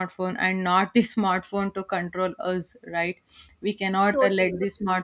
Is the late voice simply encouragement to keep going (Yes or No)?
Yes